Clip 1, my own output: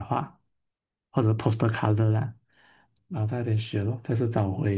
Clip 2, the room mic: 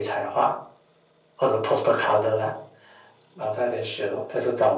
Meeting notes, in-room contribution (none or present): none